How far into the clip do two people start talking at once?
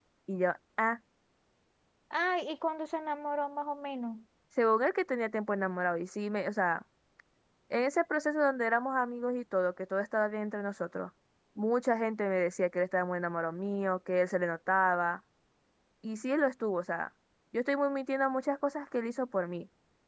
none

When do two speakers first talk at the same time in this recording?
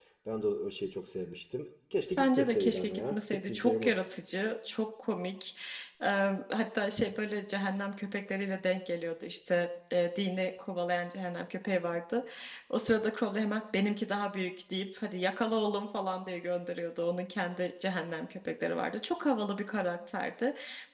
2.2 s

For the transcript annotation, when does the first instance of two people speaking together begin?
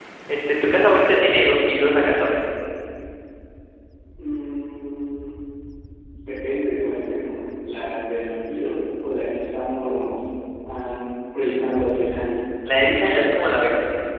none

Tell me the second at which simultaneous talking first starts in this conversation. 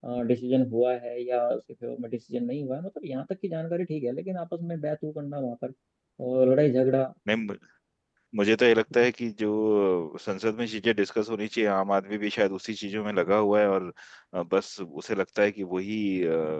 none

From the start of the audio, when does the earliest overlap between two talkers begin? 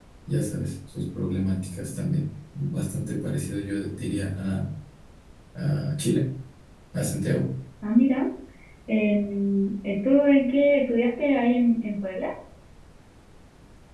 none

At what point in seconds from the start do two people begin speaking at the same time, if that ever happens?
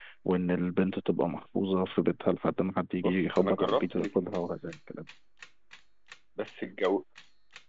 3.0 s

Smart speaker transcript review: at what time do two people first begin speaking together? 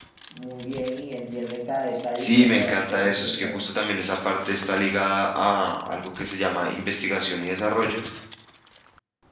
2.2 s

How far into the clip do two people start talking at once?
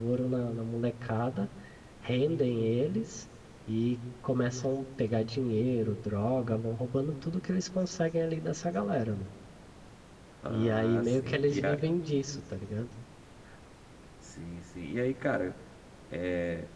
10.5 s

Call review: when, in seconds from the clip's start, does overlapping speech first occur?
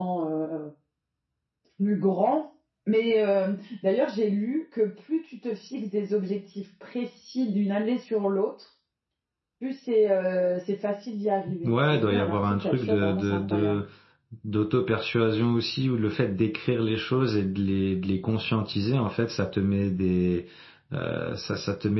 11.5 s

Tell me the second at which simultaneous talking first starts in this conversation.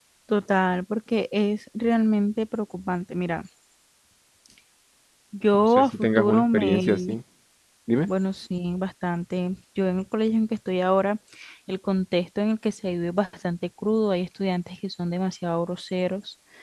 5.5 s

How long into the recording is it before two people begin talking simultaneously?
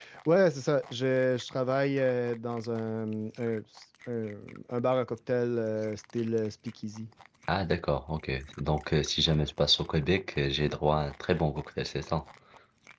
none

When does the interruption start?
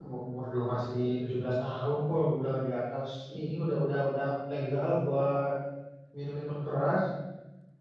none

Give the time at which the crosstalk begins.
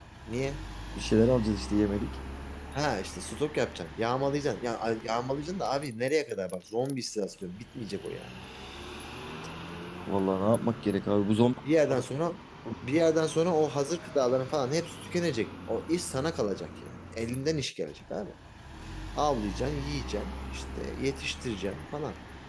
none

